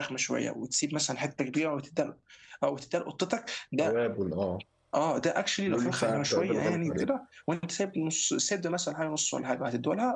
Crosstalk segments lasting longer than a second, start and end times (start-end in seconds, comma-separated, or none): 5.7-7.1